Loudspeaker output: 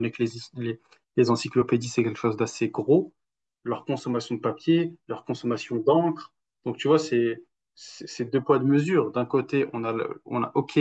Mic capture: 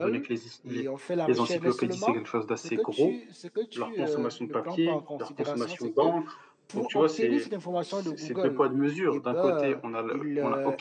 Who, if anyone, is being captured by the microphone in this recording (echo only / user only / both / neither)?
both